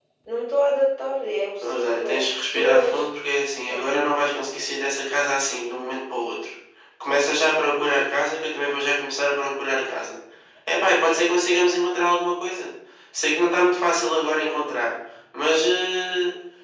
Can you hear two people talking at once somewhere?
Yes, from 1.6 s

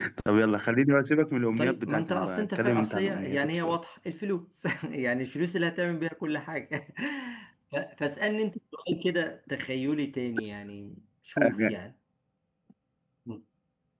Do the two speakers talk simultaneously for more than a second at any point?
Yes, from 1.6 s

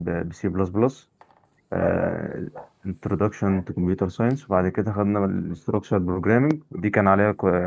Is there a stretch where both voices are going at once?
No

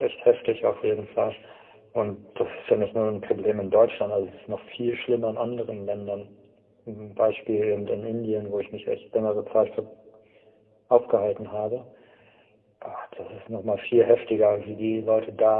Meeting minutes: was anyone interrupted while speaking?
No

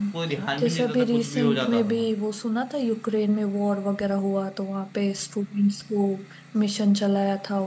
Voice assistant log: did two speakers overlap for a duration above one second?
Yes, from 0.6 s

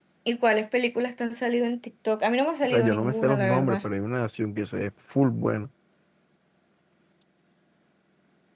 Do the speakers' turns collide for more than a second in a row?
Yes, from 2.6 s

